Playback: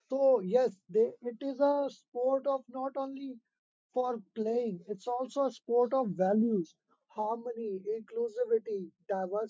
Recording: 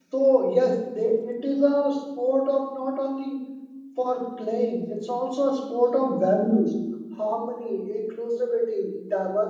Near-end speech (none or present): none